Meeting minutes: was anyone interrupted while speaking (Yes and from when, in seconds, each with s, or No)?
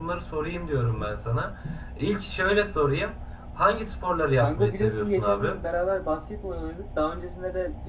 Yes, from 4.3 s